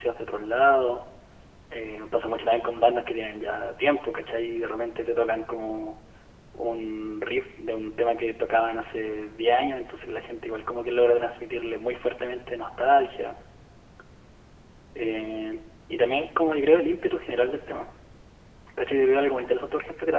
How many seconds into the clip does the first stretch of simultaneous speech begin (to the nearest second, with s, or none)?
none